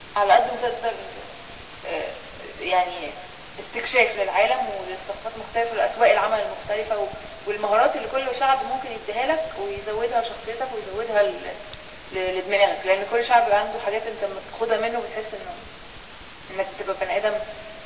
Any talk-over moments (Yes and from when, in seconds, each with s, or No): No